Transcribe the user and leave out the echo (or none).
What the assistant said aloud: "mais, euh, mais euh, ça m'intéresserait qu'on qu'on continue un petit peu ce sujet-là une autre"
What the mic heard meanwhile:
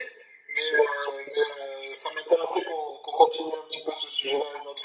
none